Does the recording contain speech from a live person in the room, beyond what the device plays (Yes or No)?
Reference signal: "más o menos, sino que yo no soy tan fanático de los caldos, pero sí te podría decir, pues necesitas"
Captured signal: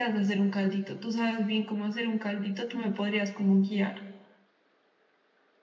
Yes